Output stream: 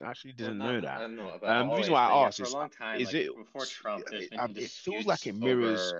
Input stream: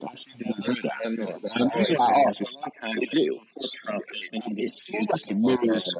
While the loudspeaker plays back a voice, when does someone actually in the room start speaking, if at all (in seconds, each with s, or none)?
none